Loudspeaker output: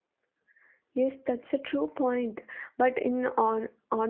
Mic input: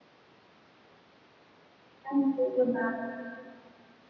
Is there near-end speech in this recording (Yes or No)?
Yes